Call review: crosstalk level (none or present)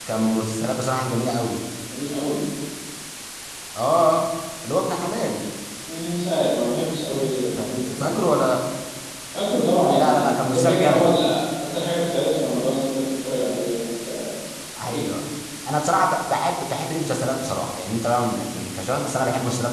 present